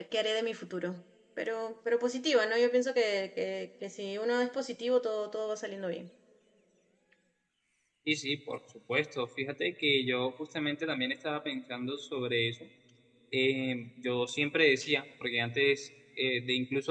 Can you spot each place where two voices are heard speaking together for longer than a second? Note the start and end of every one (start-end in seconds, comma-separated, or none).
none